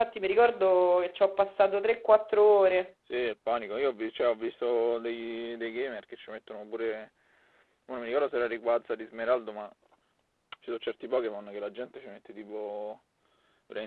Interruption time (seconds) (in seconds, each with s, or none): none